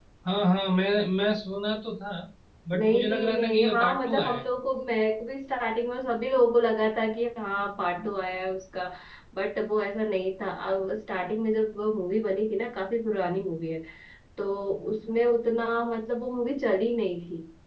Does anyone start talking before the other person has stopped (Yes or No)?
Yes